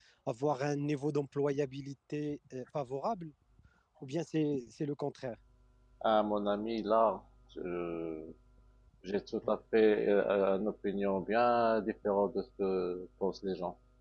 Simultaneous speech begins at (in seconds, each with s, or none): none